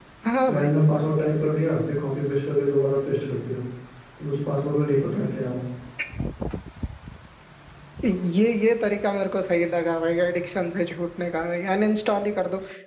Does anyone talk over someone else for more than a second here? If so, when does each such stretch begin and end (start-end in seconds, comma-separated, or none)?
none